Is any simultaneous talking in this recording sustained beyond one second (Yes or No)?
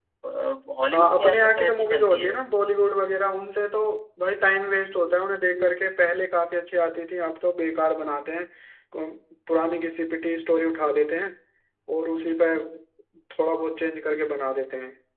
Yes